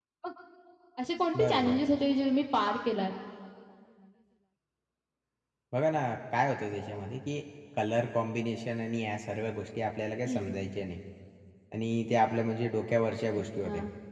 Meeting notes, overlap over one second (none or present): none